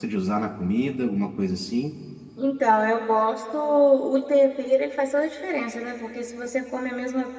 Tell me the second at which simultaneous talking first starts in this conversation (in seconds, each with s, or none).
none